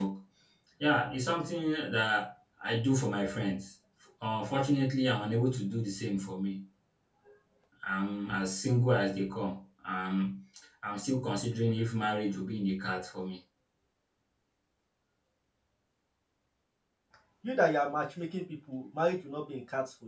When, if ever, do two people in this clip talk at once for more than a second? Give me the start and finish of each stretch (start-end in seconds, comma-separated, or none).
none